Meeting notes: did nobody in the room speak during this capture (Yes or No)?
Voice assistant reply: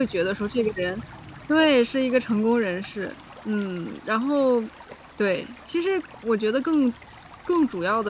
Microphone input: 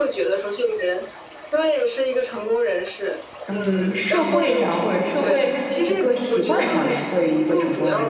No